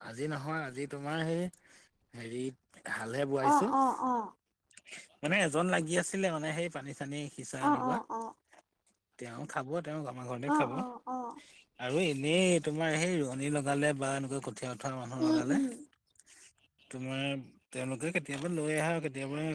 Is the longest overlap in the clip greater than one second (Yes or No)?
No